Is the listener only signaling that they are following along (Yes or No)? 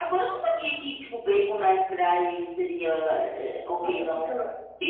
No